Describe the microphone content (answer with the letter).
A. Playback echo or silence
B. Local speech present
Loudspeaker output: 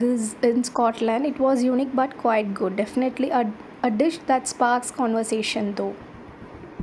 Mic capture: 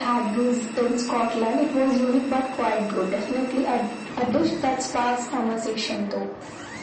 A